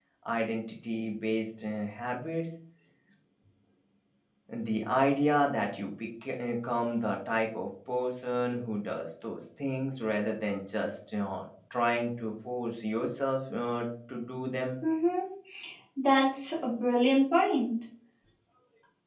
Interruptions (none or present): none